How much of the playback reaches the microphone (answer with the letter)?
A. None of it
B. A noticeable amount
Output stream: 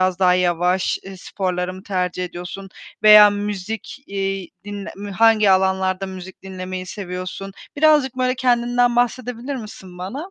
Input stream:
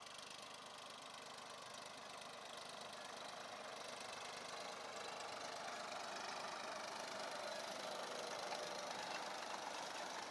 A